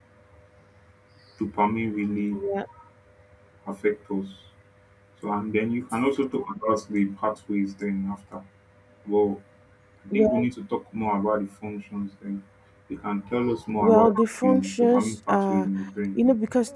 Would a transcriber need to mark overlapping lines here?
Yes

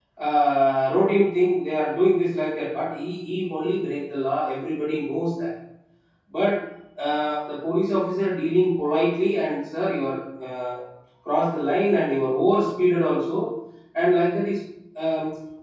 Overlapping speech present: No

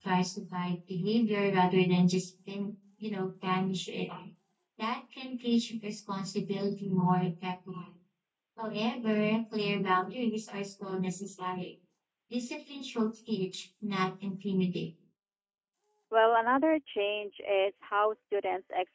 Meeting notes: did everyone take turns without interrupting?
Yes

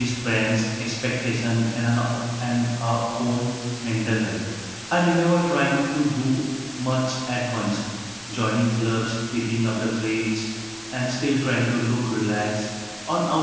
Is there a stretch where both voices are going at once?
No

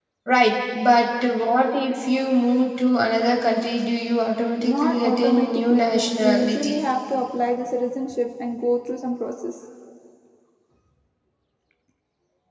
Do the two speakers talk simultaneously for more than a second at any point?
Yes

